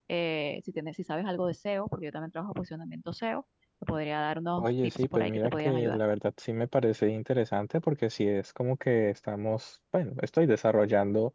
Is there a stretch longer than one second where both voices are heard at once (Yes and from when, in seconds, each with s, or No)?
Yes, from 4.6 s